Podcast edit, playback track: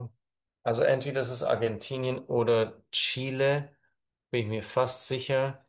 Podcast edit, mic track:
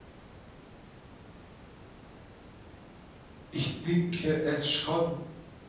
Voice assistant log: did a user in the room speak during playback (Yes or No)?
Yes